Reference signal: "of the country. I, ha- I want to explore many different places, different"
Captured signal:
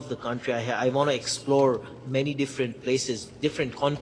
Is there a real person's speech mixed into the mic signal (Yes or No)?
No